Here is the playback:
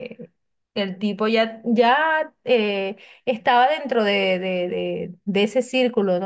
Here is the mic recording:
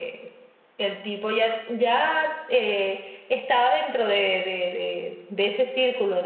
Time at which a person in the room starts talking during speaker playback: none

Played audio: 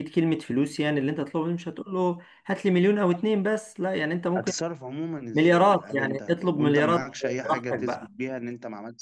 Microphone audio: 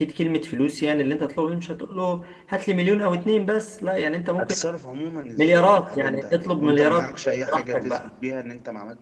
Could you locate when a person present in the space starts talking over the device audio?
none

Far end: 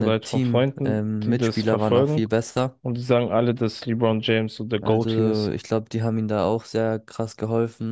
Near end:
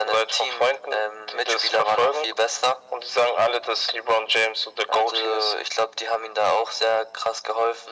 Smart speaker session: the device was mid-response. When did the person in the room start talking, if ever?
none

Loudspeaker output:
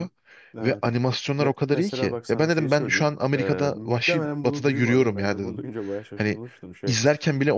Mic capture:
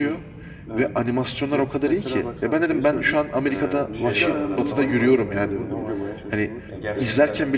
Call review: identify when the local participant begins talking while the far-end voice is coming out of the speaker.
3.9 s

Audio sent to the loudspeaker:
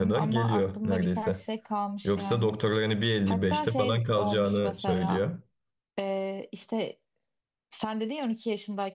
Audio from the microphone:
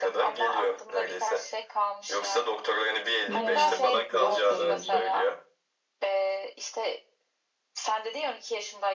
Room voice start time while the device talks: 3.3 s

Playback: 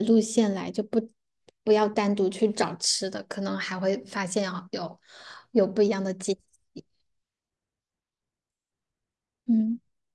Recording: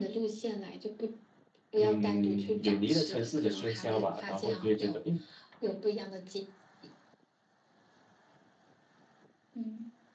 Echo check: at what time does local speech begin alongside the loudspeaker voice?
1.7 s

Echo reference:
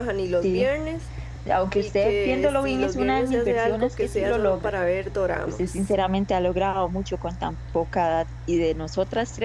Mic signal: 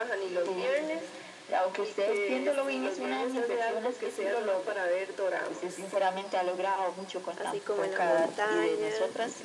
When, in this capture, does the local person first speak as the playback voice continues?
7.4 s

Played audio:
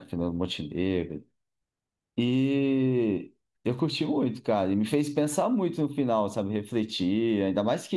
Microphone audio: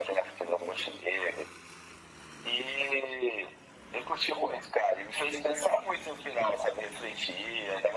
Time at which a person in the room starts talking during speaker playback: none

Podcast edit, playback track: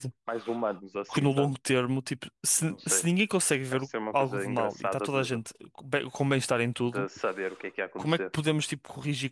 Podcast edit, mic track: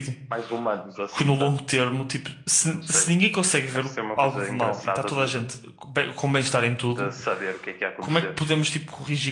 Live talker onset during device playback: none

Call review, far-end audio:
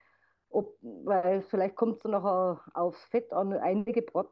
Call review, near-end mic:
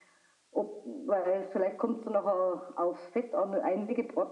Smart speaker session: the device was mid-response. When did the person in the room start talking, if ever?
none

